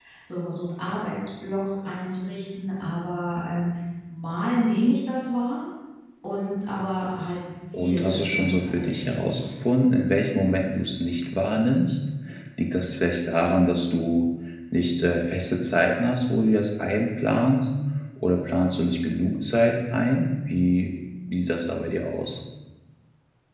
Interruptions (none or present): present